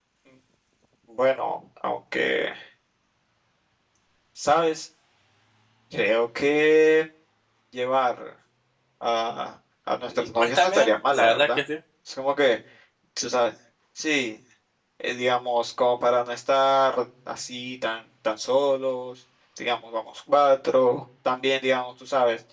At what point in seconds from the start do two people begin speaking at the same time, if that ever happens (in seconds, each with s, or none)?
10.1 s